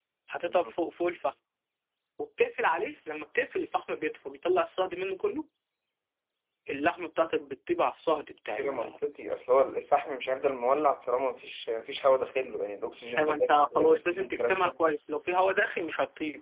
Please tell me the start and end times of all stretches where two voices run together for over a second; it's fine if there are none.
13.2-14.7

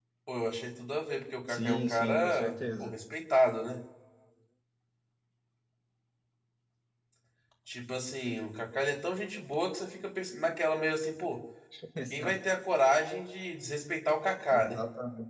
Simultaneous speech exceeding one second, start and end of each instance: 1.5-2.9

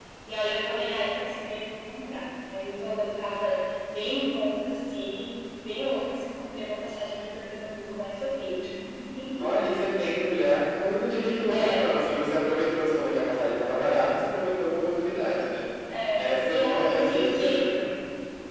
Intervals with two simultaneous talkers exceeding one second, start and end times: 16.2-17.6

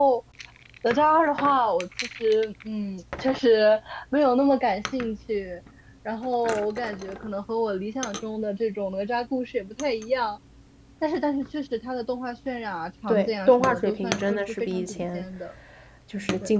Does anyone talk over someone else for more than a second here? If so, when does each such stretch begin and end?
13.1-15.2

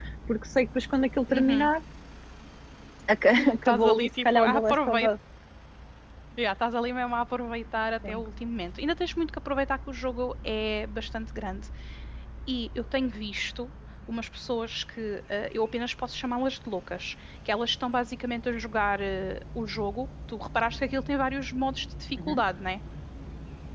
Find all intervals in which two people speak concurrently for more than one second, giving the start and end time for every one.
3.6-5.1

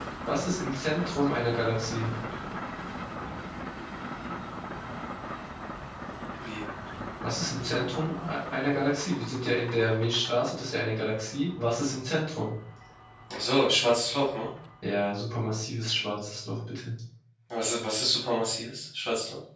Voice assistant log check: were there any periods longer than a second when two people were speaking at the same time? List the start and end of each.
none

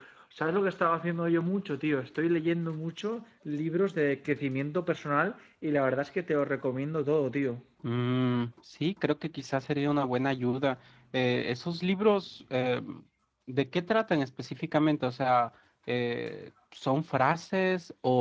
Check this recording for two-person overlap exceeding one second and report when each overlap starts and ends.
none

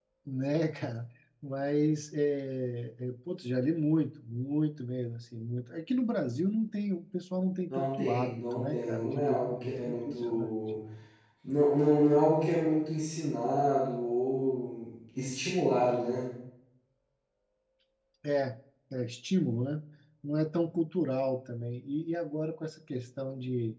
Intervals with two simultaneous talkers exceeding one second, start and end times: 7.7-10.5

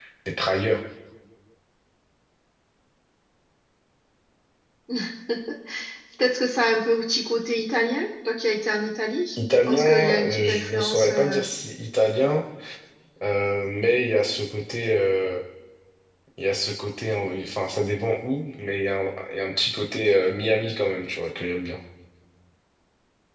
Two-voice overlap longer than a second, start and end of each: 9.4-11.4

